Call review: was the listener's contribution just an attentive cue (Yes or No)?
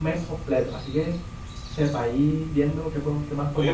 No